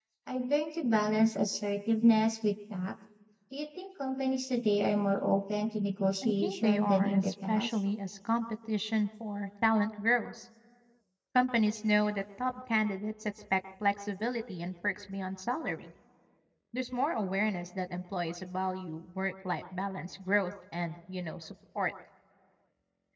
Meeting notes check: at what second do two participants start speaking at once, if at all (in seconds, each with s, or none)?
6.2 s